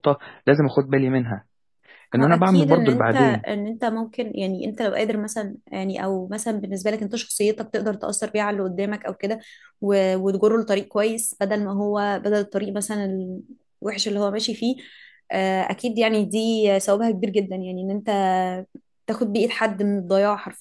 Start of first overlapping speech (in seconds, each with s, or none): 2.1 s